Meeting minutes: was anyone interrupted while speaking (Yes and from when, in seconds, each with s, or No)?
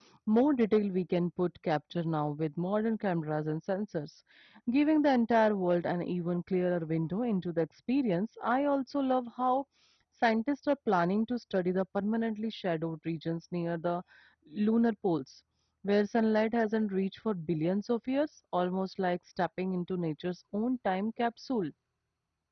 No